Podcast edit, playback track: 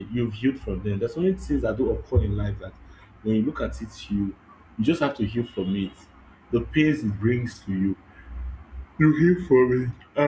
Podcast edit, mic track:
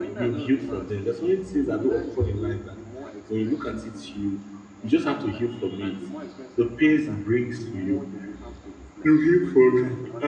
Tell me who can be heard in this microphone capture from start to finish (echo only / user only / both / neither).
both